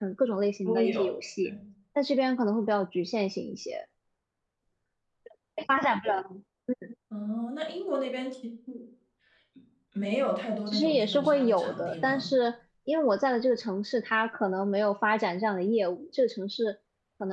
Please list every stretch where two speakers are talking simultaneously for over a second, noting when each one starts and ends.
10.7-12.3

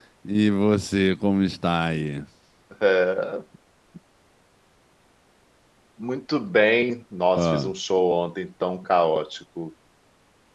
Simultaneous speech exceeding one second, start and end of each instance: none

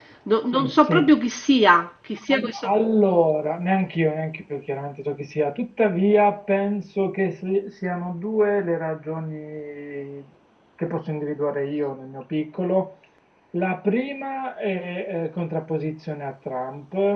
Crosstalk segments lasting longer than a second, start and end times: none

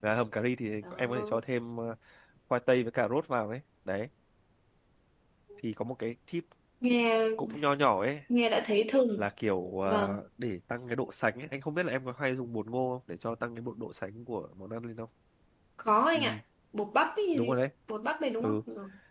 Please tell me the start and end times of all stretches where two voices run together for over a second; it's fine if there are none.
none

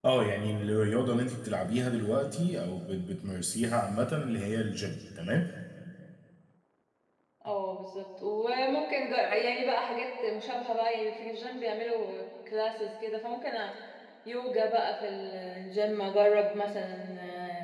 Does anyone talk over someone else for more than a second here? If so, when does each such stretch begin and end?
none

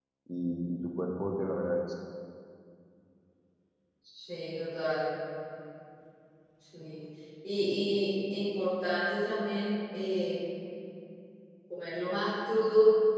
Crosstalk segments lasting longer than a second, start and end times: none

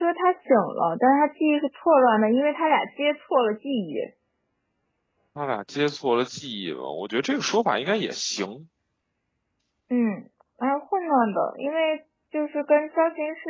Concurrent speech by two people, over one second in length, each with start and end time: none

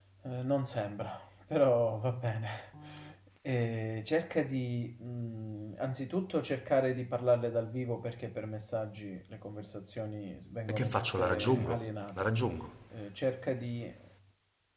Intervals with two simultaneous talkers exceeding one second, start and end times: 10.7-12.3

